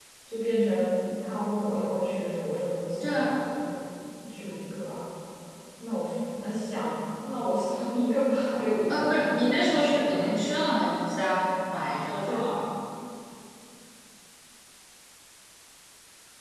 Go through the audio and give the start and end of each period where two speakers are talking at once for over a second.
8.9-10.3

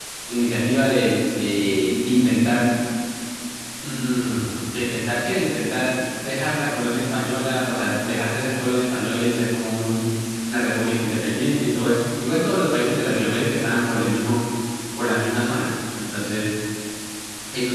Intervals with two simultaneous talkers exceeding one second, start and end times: none

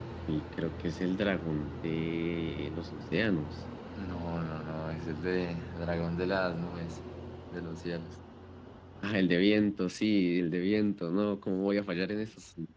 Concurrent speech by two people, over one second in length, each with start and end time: none

